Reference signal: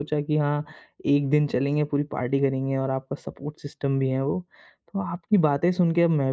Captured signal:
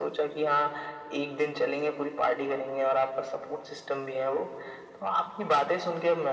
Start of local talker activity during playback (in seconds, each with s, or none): none